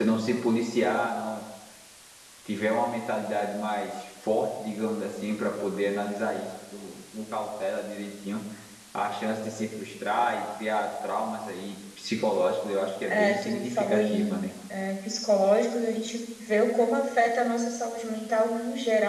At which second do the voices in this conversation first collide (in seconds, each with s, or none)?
13.1 s